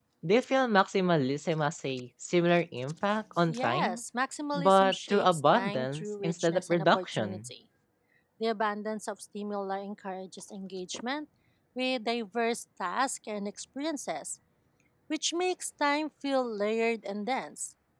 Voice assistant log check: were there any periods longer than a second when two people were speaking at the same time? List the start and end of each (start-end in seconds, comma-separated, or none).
4.5-7.5